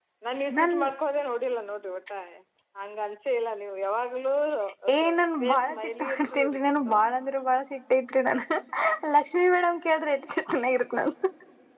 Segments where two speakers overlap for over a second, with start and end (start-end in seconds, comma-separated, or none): 5.4-7.0